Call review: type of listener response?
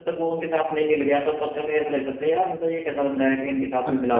taking over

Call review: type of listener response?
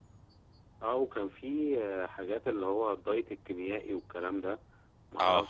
listening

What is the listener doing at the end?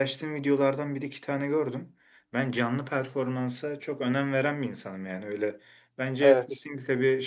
listening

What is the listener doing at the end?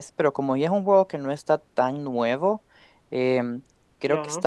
listening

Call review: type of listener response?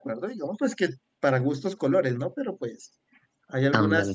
listening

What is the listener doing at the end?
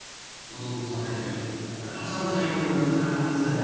taking over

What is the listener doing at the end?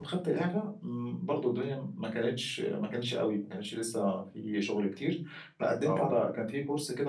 listening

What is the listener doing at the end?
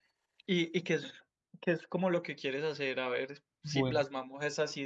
listening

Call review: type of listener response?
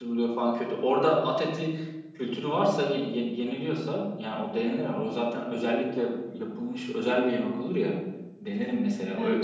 taking over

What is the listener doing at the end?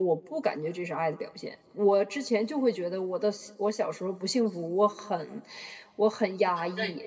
listening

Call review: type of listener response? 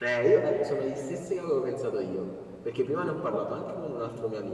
listening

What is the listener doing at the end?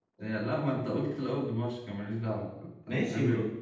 taking over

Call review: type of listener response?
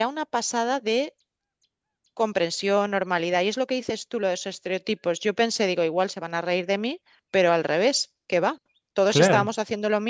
listening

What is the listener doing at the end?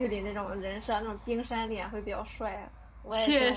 taking over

